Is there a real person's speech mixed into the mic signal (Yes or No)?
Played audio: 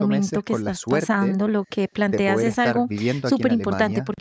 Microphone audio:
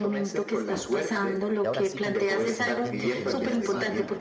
Yes